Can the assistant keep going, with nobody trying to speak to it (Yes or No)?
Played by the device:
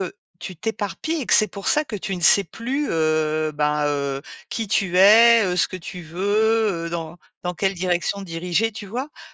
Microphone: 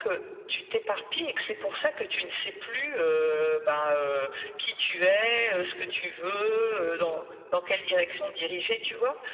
Yes